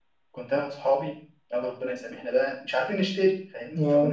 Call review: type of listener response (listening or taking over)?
listening